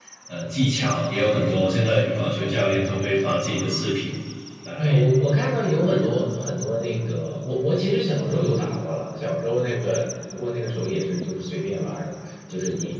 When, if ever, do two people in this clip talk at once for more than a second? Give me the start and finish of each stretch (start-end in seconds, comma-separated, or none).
none